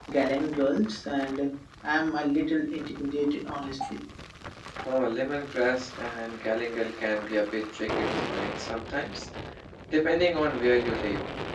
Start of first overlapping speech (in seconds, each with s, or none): none